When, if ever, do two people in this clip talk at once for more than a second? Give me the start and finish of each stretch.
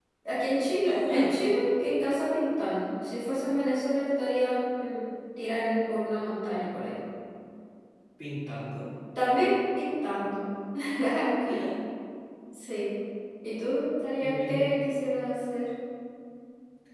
none

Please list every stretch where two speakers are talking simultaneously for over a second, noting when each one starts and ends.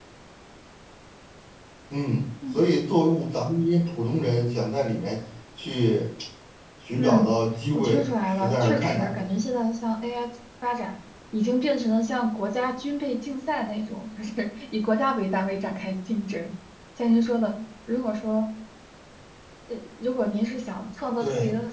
7.7-9.3

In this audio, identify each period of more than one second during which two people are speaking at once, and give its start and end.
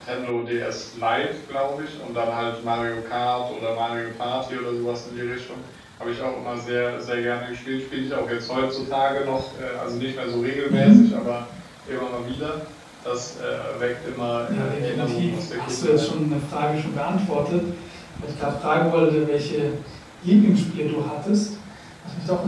14.5-16.1

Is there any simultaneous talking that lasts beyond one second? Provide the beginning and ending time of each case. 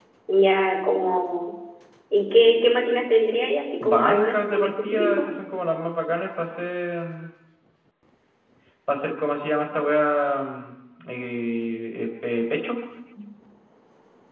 3.8-5.2

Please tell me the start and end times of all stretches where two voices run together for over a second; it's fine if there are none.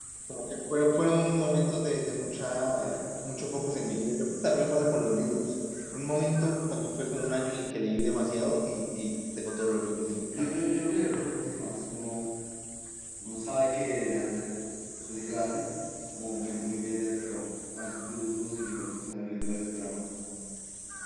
none

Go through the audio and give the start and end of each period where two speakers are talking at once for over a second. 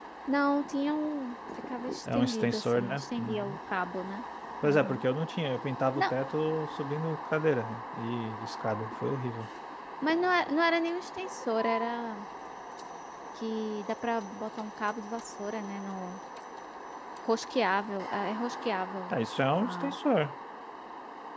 2.1-3.6

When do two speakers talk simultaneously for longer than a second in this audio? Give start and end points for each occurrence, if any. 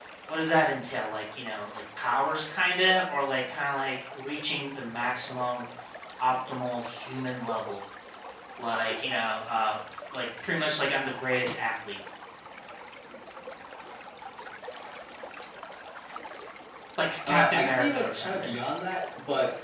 17.3-18.5

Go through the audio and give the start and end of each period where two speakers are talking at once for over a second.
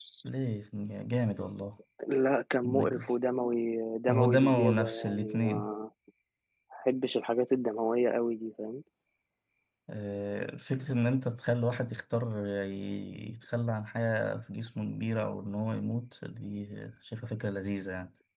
4.1-5.7

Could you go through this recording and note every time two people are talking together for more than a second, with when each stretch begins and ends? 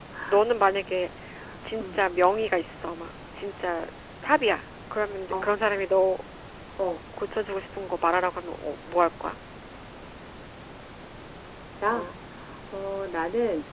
none

